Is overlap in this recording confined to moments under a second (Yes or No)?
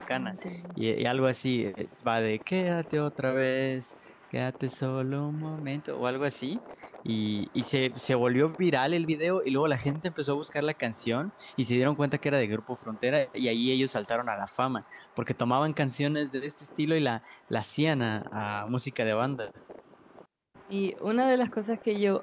Yes